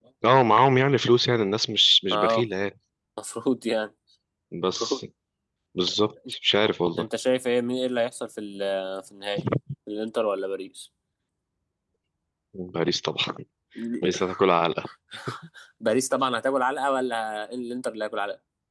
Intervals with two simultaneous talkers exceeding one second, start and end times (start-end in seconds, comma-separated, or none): none